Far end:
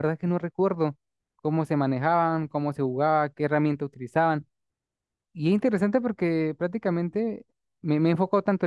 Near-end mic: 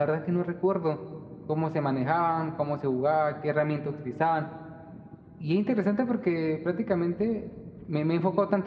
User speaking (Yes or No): No